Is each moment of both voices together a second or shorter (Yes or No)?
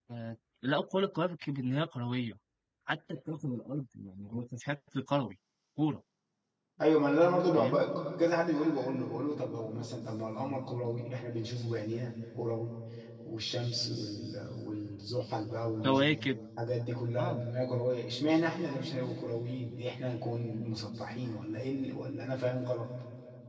Yes